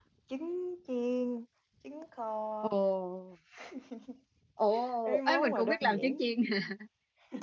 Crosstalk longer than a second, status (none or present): present